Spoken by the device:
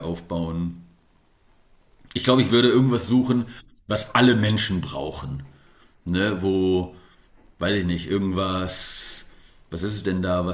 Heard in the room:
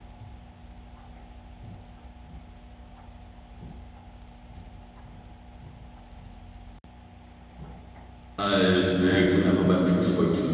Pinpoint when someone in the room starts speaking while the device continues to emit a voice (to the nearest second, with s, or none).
8 s